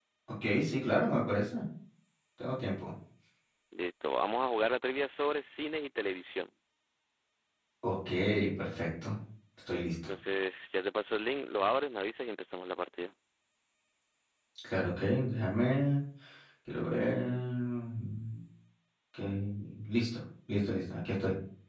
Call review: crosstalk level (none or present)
none